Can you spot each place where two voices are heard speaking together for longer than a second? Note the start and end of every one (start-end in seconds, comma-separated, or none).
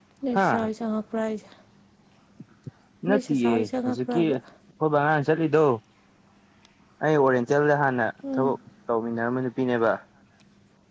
3.1-4.4